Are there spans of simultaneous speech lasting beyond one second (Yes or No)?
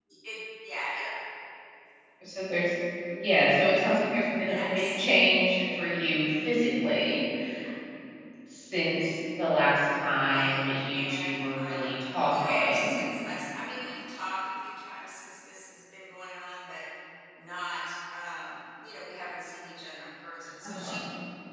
Yes